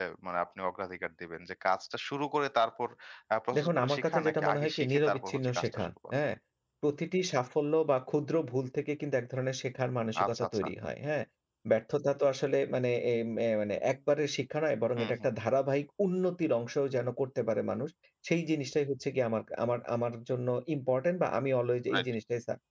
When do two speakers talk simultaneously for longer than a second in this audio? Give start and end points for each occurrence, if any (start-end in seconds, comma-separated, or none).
3.6-5.9